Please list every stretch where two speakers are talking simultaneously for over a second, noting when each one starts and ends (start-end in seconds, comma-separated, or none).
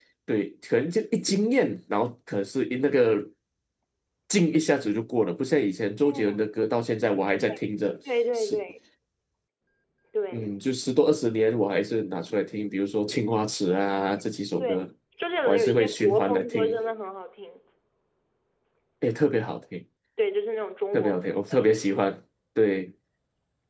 15.4-16.8